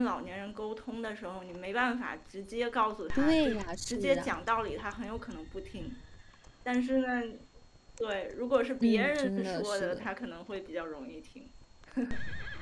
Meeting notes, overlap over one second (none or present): present